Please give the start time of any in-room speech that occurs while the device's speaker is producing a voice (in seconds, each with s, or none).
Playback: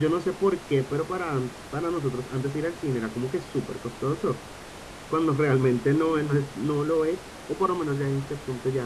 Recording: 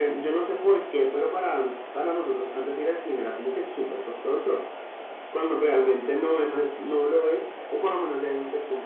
none